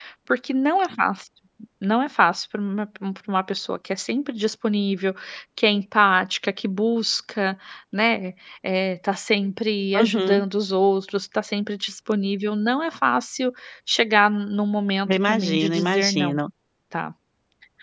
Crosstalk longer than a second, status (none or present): present